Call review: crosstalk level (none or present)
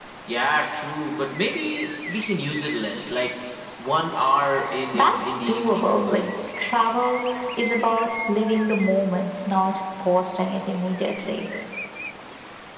present